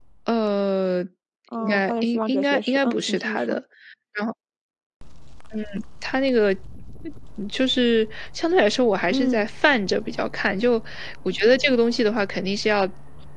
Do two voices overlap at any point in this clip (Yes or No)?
Yes